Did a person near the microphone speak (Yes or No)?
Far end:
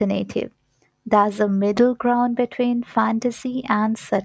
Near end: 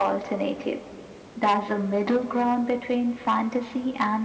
No